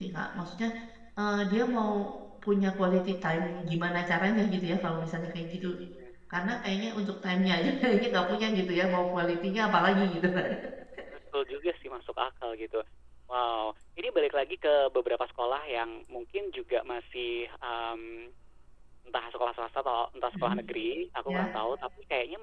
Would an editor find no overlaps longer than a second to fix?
Yes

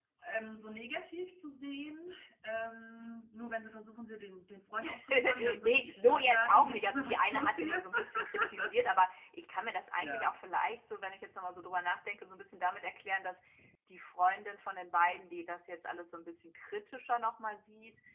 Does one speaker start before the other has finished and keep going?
Yes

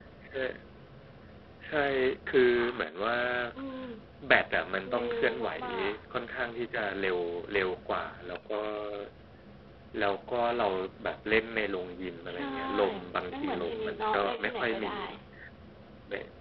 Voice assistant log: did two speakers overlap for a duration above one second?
Yes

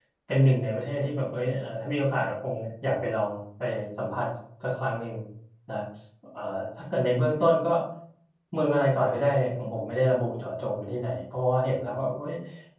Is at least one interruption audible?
No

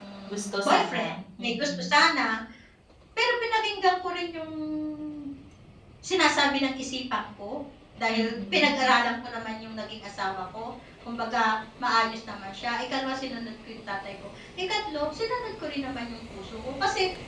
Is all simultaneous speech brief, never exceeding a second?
No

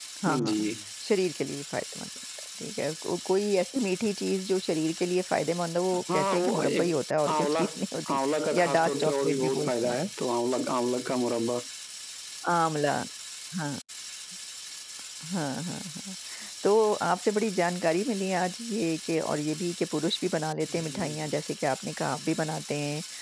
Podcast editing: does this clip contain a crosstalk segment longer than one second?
Yes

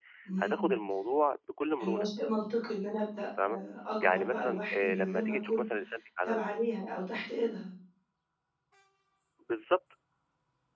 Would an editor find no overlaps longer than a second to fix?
No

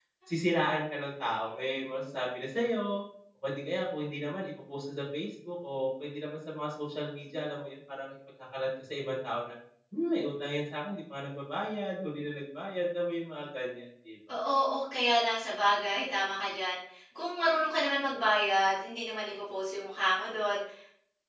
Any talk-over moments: No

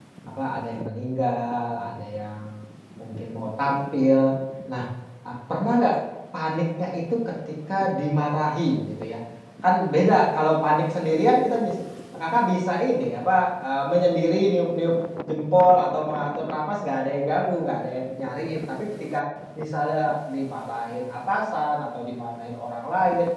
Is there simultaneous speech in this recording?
No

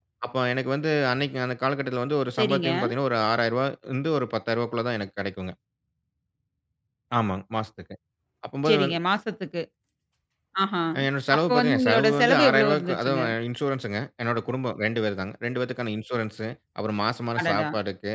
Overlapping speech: Yes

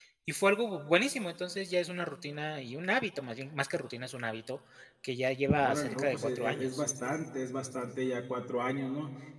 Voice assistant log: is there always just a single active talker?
No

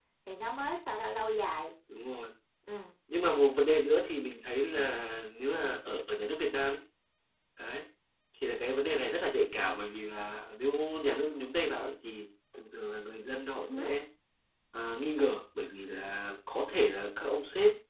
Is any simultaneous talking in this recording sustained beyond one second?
No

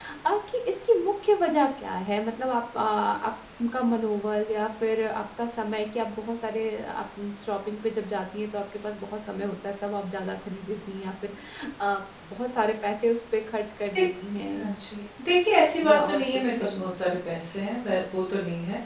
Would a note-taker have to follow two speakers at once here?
Yes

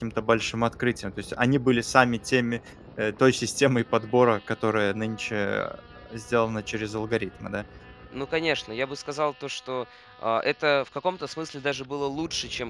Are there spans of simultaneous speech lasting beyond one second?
No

